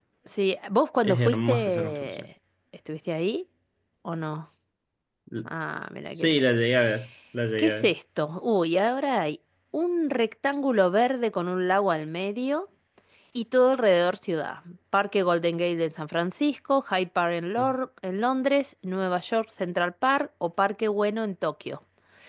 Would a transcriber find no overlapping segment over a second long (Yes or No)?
No